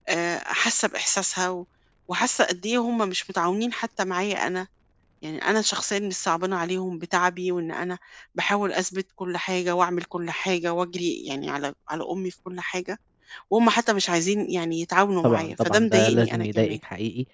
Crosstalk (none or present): present